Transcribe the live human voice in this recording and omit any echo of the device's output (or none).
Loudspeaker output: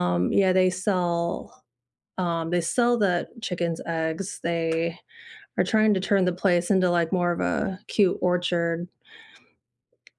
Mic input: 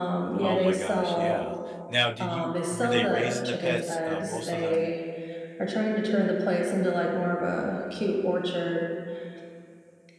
Oh my gosh, yeah. Now, did you were they raising the pets, uh most of them